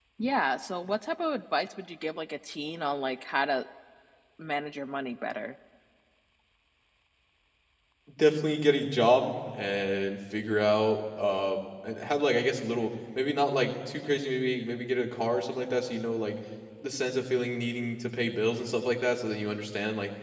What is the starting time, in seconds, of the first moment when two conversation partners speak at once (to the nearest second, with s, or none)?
none